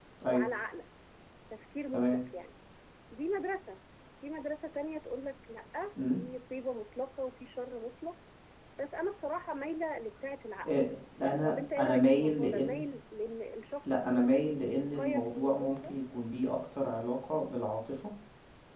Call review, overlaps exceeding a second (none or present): present